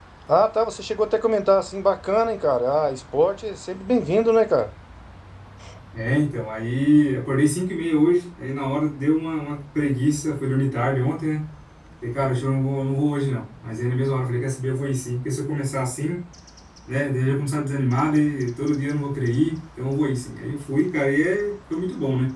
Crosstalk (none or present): none